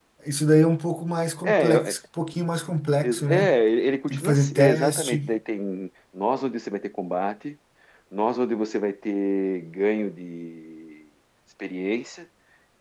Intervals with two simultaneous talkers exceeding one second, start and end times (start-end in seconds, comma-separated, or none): 4.1-5.3